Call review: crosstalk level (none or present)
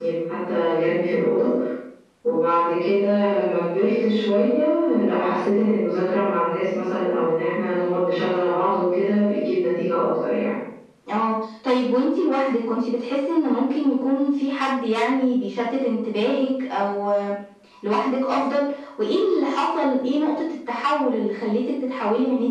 none